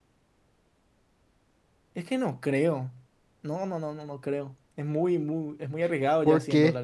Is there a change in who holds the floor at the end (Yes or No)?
Yes